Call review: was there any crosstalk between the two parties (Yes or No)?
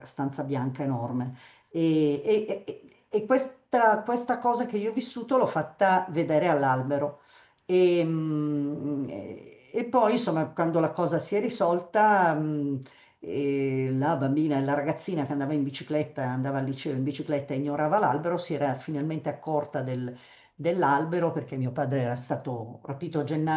No